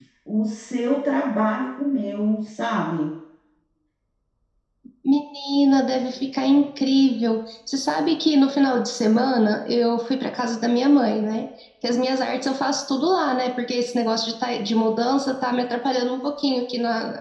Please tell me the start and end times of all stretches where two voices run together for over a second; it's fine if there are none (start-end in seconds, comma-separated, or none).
none